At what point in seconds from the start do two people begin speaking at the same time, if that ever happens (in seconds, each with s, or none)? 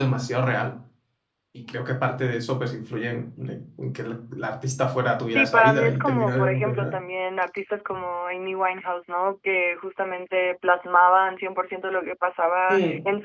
5.3 s